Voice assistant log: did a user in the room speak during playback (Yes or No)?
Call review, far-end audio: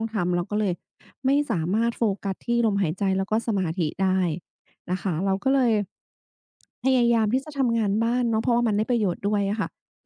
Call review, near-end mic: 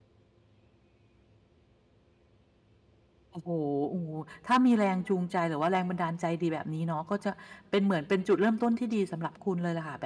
Yes